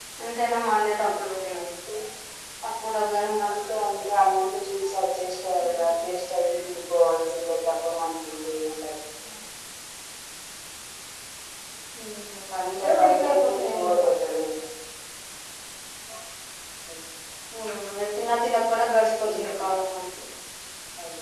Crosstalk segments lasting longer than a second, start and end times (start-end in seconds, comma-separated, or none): 12.7-14.1